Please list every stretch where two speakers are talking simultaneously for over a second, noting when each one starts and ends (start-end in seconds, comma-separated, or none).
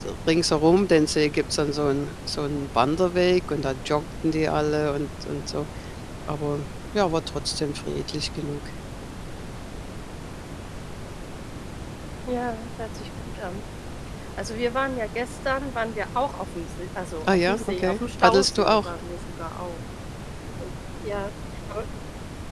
17.3-18.9